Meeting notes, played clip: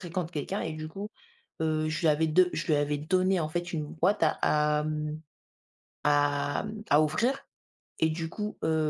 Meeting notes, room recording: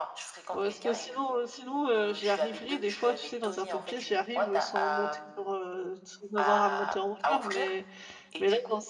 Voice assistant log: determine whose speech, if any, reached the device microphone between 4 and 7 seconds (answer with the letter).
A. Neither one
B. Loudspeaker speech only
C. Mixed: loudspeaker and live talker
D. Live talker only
C